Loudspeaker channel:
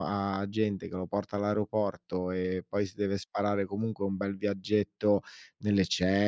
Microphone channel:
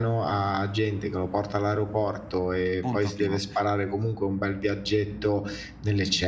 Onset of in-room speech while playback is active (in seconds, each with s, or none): 2.8 s